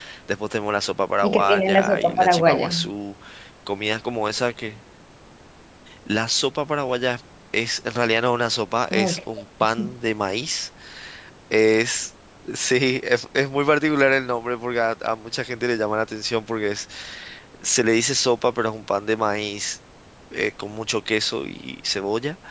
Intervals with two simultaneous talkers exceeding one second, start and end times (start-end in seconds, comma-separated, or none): 1.2-2.7